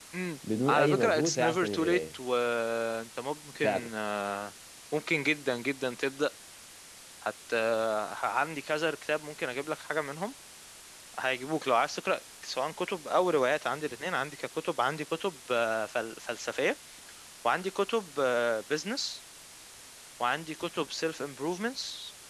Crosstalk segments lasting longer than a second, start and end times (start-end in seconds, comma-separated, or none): 0.7-2.0